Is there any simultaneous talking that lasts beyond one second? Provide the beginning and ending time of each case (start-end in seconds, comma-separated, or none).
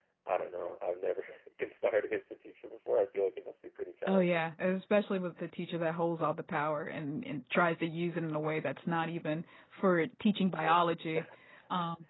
none